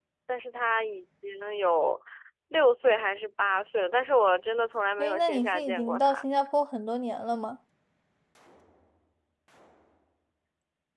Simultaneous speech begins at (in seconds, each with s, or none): 5.0 s